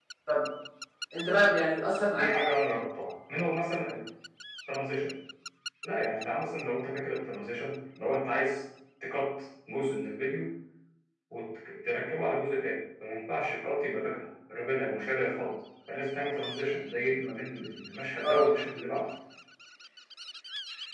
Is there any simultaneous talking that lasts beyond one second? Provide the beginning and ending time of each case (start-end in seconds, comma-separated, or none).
none